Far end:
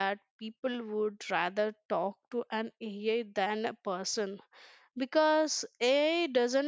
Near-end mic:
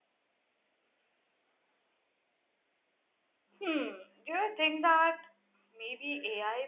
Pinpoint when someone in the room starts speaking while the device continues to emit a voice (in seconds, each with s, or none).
3.6 s